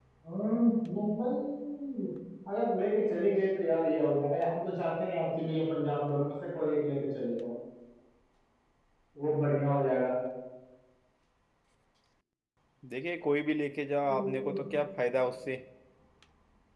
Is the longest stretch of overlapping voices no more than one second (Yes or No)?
Yes